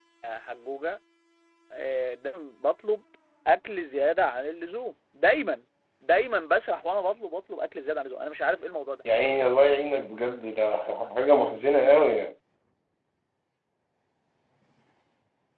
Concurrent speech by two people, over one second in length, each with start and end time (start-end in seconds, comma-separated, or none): none